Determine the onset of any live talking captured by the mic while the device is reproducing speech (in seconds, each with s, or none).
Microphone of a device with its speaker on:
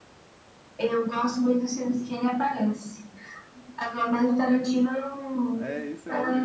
5.5 s